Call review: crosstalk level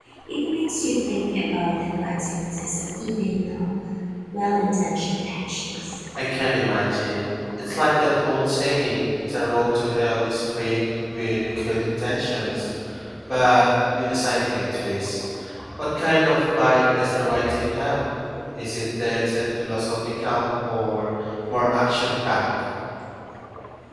none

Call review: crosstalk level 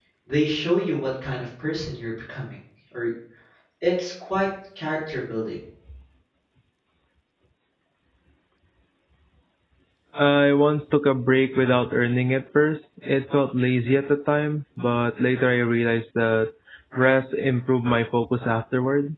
none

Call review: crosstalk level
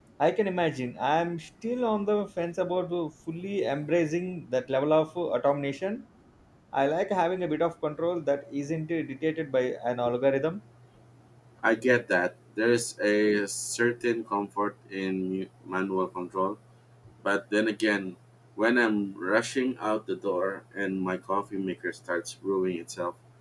none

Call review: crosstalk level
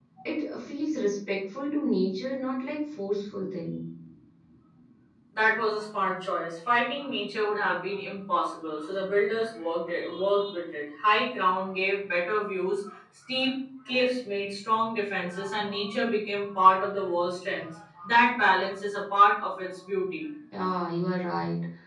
none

